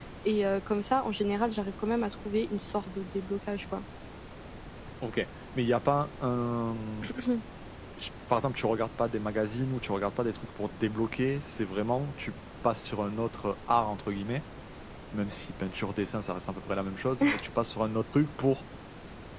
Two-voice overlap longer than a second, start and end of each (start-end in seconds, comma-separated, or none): none